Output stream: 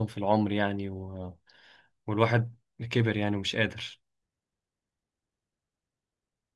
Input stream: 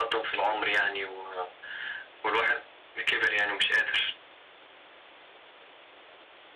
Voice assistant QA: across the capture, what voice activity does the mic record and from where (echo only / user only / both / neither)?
echo only